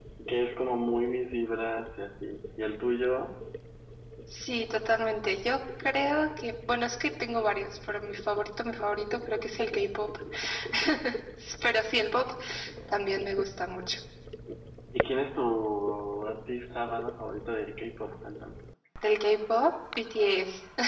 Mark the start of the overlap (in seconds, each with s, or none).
none